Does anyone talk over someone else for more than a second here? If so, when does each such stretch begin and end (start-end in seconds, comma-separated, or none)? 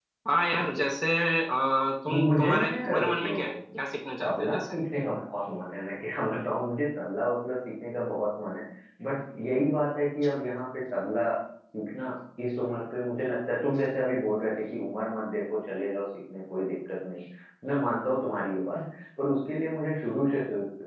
2.1-3.4